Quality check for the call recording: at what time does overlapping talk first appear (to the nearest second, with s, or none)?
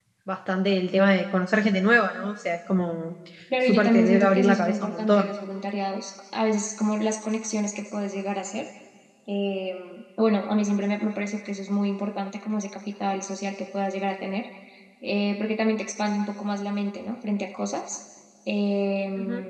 4 s